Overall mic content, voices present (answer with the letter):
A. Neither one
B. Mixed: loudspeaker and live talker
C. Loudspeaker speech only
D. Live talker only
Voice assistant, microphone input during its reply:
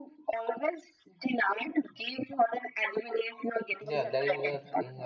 B